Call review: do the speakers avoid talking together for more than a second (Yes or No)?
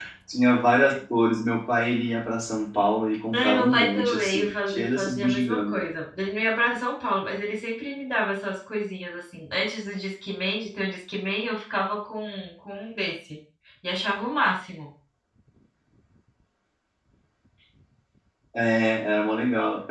No